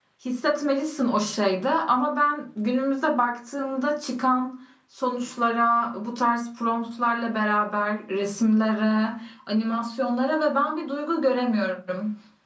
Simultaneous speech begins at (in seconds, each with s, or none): none